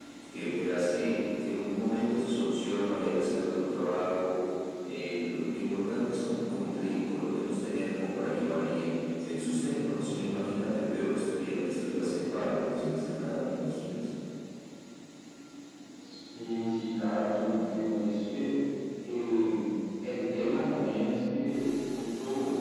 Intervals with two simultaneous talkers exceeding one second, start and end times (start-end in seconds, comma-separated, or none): none